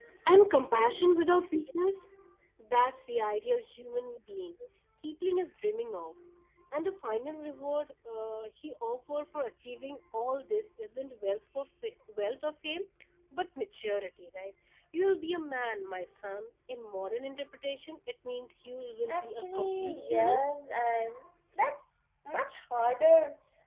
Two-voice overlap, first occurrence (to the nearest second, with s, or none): 19 s